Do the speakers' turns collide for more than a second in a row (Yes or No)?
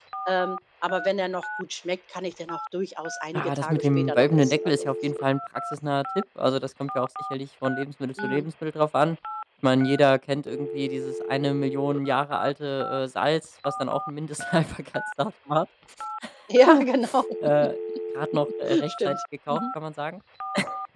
Yes